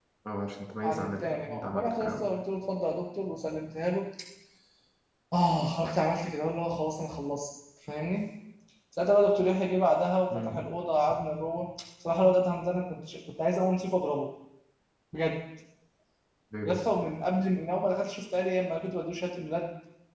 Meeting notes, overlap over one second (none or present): present